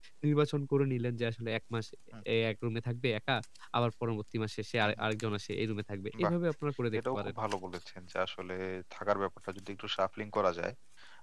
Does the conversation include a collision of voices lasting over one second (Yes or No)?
No